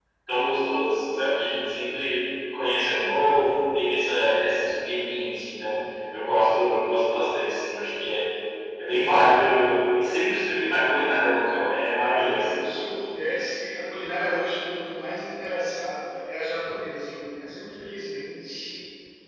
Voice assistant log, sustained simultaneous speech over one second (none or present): none